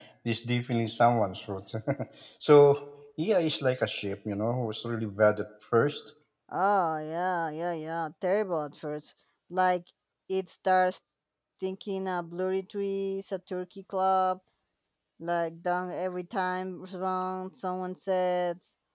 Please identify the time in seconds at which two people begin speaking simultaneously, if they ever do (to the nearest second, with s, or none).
none